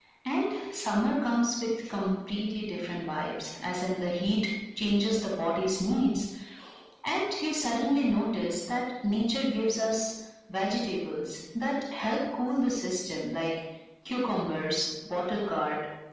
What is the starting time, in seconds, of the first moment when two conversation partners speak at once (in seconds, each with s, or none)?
none